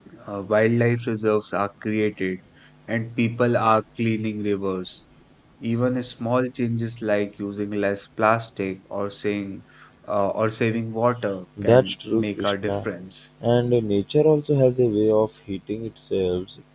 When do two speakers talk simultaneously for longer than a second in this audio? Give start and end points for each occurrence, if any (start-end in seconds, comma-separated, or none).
11.6-12.8